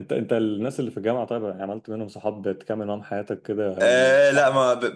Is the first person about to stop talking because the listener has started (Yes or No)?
Yes